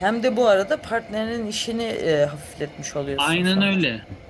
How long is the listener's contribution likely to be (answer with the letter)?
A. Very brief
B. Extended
B